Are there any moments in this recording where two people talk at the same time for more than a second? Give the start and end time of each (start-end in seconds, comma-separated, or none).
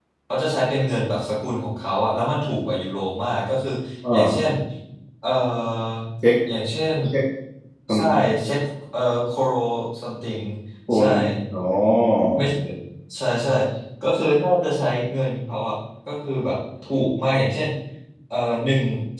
none